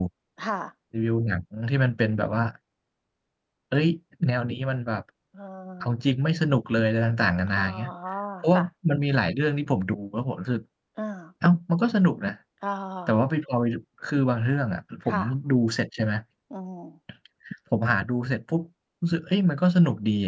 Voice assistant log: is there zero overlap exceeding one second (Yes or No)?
Yes